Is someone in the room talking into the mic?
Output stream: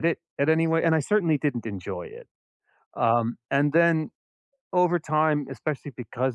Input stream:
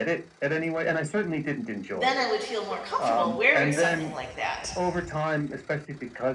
Yes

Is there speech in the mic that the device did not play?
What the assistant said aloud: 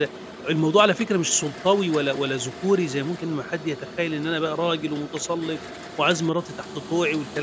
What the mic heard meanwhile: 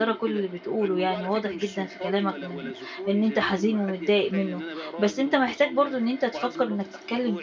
Yes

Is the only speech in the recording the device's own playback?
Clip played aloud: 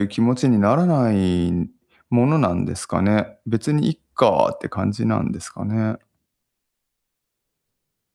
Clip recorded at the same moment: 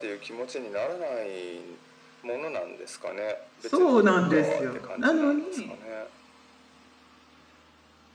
No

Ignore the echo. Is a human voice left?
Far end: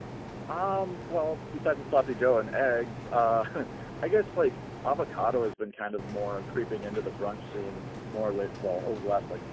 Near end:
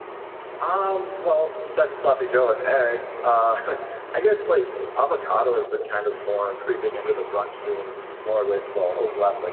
No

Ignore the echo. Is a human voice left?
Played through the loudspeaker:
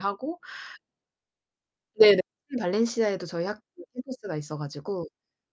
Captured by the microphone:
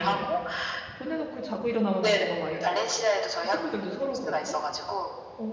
Yes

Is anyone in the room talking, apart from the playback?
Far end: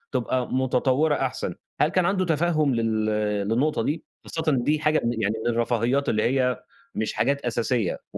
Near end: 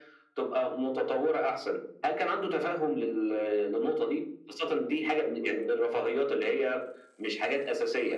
No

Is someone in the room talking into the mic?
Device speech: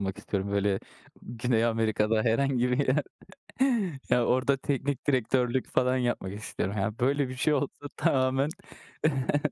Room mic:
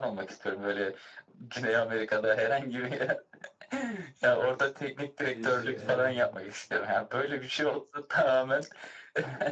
Yes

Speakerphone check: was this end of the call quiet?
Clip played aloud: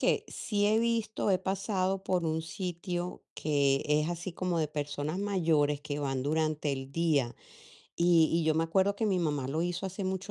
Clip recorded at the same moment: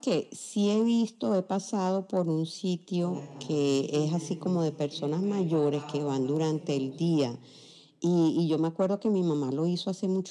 No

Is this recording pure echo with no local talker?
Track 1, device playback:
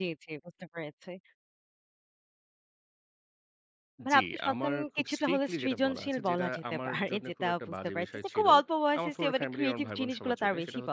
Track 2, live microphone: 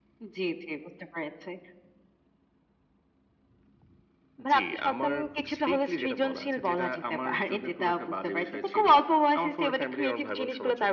Yes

